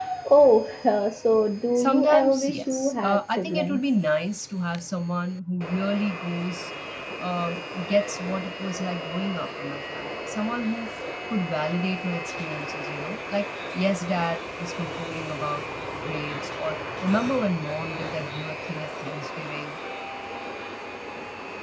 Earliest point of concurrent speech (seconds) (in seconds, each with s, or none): 1.8 s